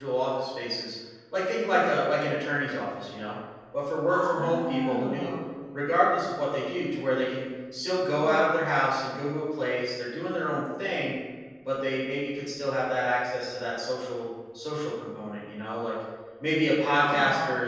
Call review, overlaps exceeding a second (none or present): present